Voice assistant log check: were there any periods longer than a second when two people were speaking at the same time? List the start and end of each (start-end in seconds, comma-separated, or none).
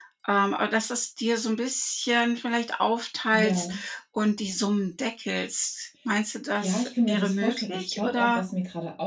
6.6-8.4